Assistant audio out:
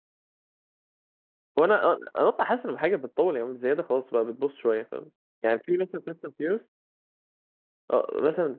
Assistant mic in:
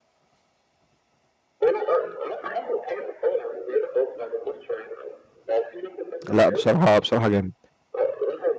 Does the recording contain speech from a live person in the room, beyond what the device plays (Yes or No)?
Yes